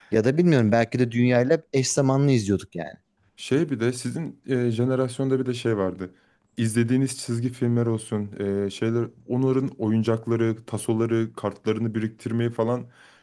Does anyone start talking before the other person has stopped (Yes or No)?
No